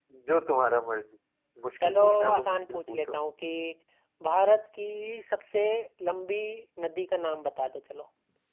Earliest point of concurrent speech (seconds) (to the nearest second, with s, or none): 2 s